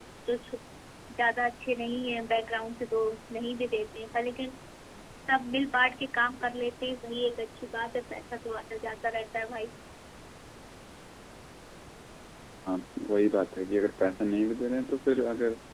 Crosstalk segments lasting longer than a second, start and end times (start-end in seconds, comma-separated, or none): none